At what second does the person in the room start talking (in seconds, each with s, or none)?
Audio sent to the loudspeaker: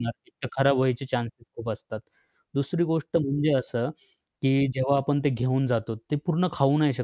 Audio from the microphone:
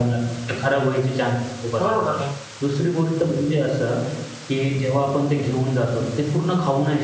1.8 s